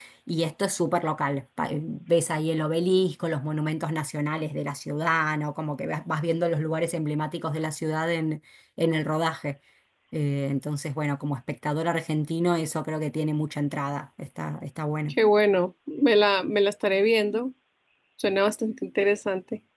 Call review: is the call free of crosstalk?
Yes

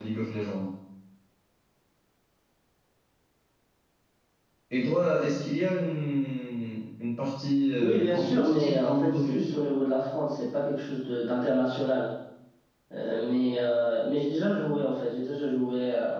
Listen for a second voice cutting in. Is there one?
Yes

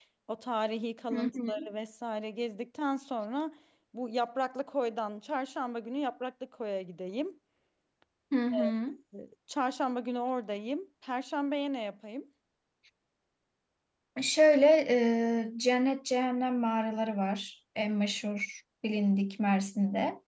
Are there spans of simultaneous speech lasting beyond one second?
No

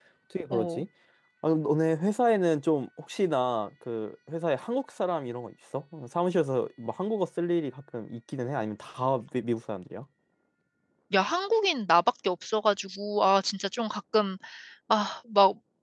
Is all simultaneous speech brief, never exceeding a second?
Yes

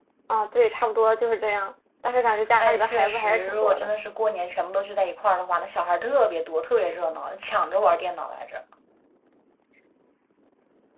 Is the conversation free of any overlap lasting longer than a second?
No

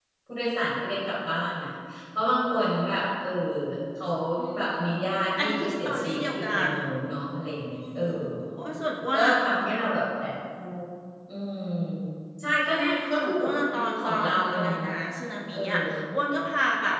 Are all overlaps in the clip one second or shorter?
No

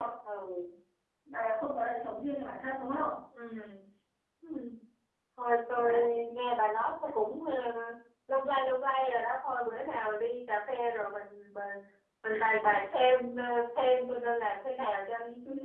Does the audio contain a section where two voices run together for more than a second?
No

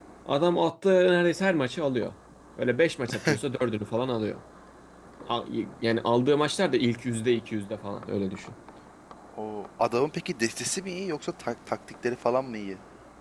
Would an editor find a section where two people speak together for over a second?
No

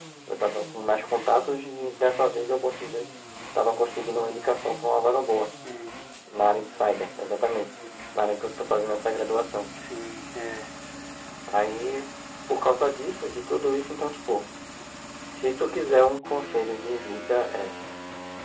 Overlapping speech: No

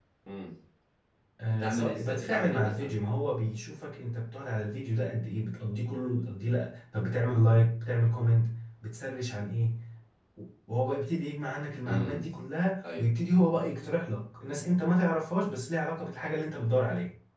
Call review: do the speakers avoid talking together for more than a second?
No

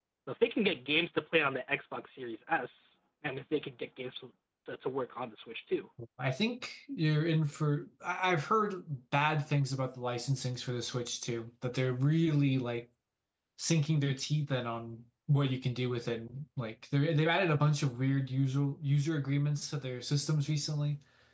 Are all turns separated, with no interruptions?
Yes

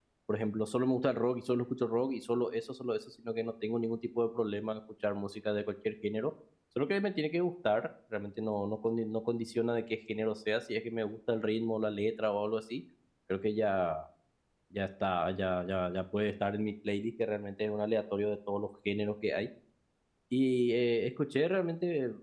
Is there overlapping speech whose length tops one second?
No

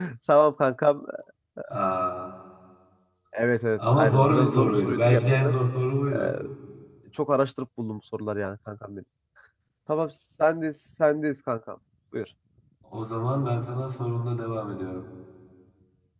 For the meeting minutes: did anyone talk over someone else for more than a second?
Yes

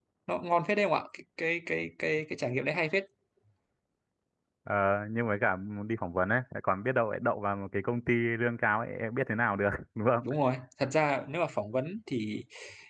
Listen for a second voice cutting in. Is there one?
No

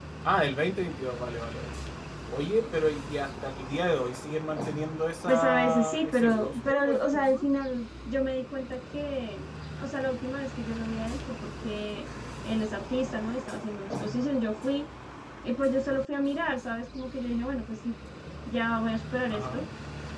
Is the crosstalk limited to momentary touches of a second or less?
No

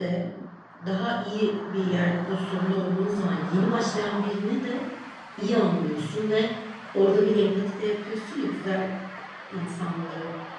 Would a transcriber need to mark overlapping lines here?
No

